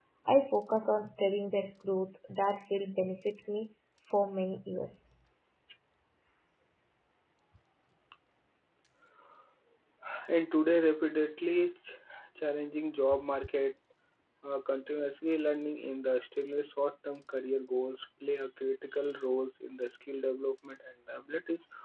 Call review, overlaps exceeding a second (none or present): none